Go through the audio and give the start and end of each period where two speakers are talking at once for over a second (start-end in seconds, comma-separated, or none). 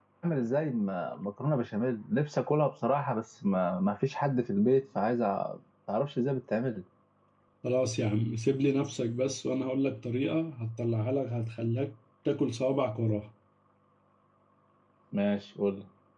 none